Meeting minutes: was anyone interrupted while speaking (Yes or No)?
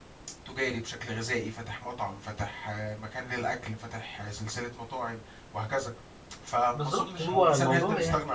Yes